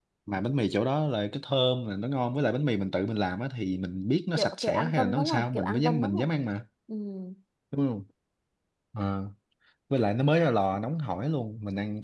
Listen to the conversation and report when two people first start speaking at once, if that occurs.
4.4 s

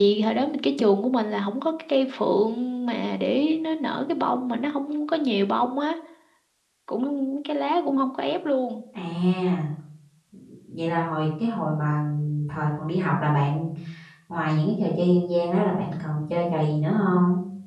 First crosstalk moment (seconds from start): none

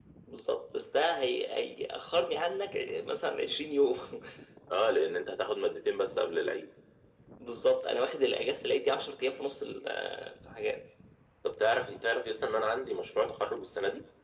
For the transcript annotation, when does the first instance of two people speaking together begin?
none

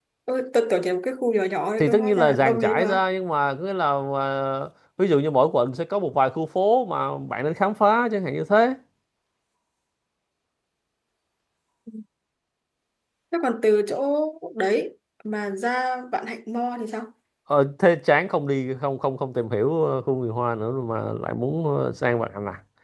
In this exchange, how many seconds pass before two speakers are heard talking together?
1.8 s

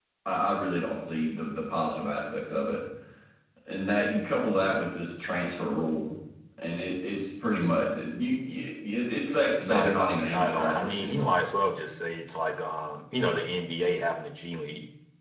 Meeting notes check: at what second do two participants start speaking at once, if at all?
9.6 s

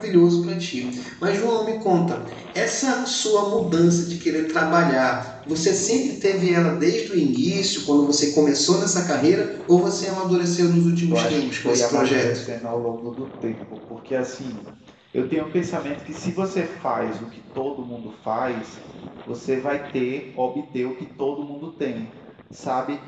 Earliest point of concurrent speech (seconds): 11.1 s

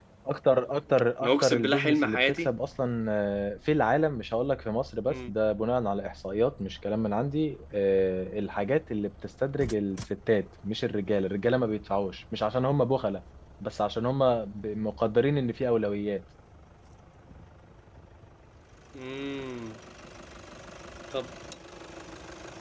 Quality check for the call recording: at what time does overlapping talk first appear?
1.2 s

